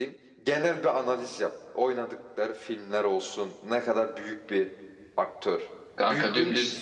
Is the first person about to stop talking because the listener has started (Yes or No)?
Yes